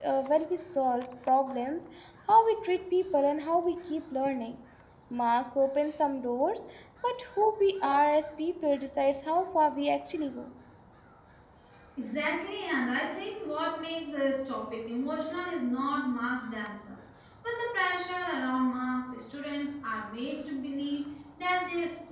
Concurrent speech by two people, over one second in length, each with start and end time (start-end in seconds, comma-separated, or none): none